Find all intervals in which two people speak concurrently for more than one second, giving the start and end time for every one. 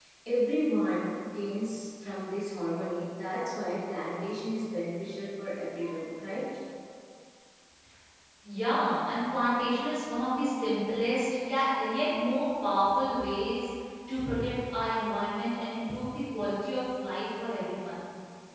none

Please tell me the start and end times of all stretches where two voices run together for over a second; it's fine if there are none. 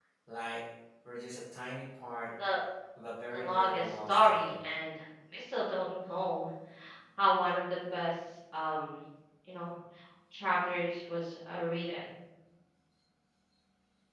3.3-4.5

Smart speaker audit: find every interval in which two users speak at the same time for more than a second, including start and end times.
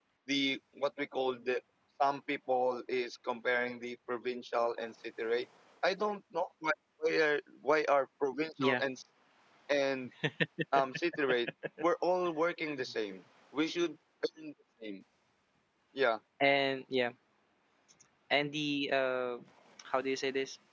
none

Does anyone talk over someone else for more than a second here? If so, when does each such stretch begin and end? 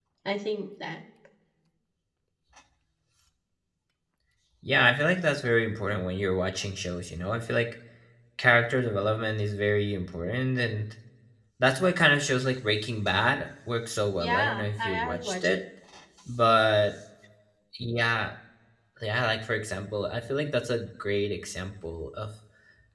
14.2-15.6

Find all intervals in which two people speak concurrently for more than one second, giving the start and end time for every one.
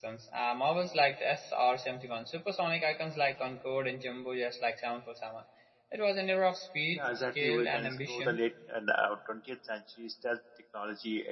6.9-8.4

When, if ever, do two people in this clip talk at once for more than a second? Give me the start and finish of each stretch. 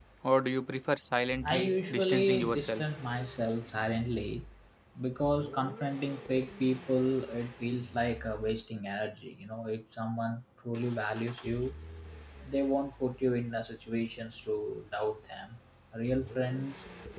1.5-2.8

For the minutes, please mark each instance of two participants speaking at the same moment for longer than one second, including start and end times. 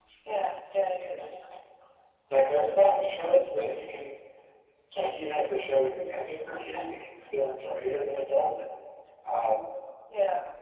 none

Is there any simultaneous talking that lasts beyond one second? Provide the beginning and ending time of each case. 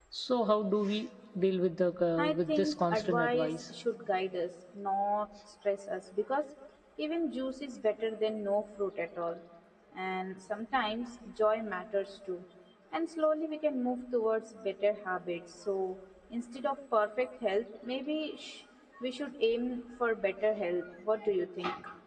2.2-3.6

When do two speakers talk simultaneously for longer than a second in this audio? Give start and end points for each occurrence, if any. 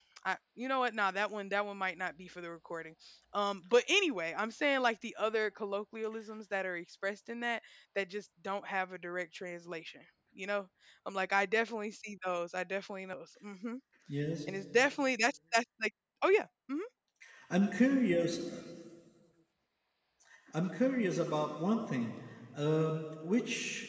none

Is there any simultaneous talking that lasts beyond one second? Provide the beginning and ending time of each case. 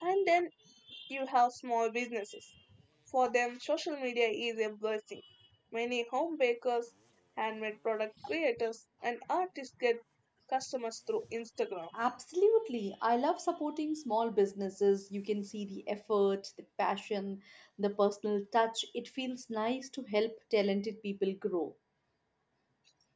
none

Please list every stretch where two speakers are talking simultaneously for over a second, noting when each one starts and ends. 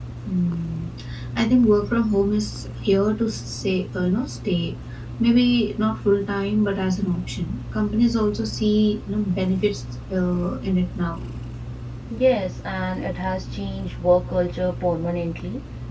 none

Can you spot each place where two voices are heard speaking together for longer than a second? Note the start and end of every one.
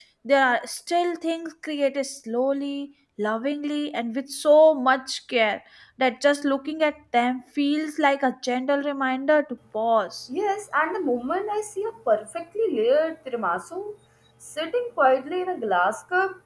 none

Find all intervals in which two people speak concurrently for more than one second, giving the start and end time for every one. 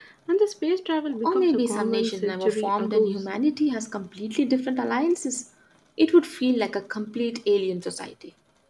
1.2-3.1

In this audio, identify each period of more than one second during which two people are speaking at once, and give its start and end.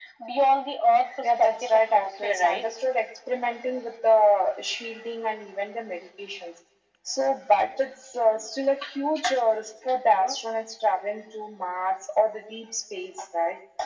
1.2-2.6

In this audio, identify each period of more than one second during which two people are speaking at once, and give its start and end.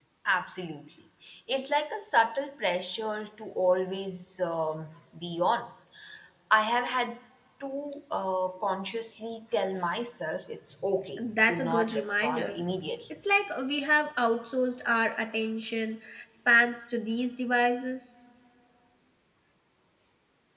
11.2-12.6

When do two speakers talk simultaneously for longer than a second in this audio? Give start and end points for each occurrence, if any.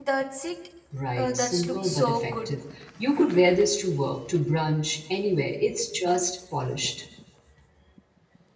1.2-2.5

